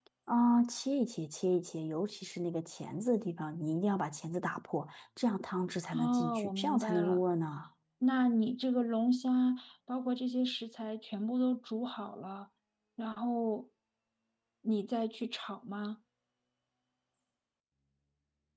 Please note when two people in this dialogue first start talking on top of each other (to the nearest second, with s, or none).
6 s